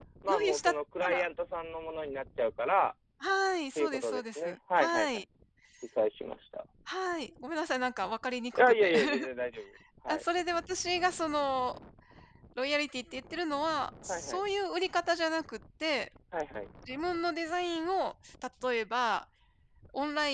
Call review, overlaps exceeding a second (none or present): present